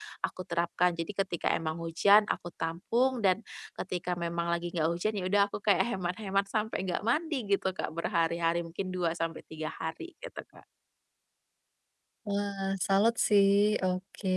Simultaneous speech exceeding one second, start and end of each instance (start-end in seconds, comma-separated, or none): none